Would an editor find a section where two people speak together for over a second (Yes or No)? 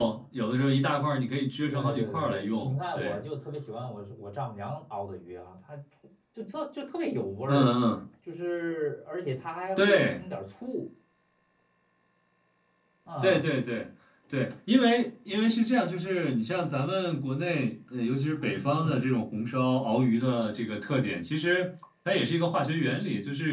Yes